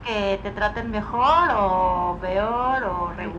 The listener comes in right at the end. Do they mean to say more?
Yes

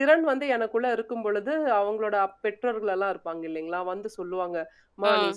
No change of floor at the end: Yes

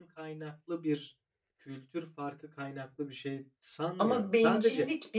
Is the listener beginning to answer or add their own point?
Yes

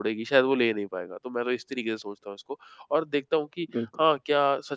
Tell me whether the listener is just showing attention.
Yes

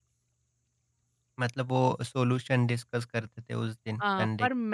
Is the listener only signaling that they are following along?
No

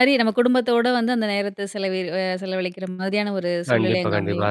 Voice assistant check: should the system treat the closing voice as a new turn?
Yes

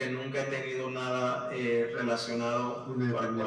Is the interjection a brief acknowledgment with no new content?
No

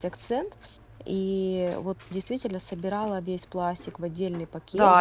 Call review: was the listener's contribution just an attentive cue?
No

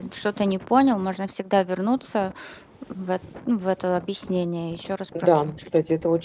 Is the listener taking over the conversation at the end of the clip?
Yes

